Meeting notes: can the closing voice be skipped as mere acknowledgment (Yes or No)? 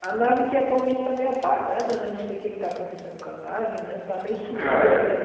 No